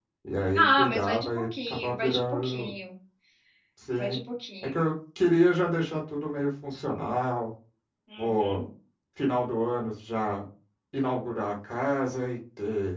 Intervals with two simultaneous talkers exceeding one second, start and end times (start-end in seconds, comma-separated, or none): 0.6-2.7